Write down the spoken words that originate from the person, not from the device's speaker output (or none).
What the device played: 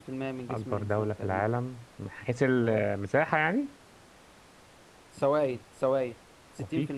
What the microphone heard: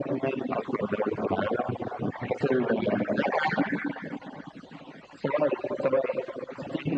none